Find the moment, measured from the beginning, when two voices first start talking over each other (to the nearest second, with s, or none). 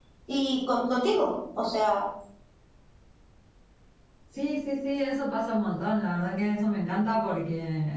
none